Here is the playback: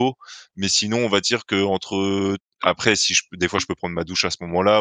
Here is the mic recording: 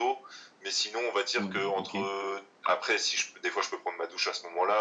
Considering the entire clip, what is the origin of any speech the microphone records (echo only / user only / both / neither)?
both